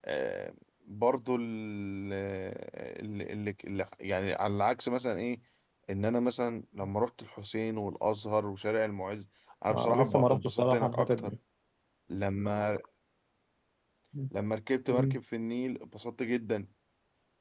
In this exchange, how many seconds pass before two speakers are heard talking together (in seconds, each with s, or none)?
9.8 s